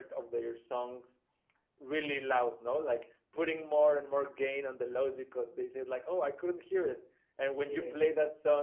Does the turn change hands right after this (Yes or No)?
No